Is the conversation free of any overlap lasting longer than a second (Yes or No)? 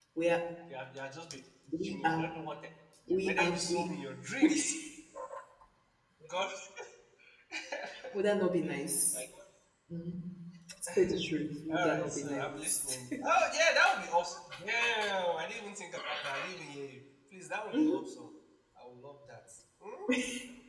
No